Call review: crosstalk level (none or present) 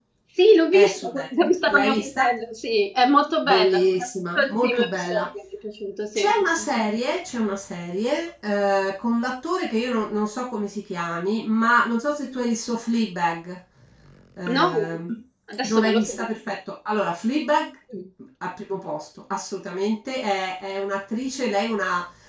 present